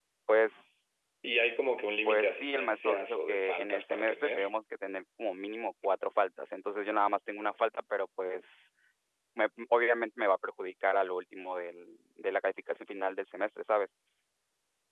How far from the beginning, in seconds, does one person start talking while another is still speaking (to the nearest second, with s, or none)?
2 s